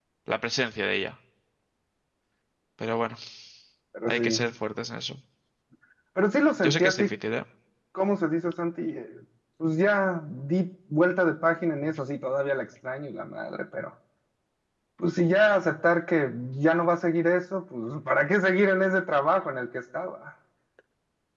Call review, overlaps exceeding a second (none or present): none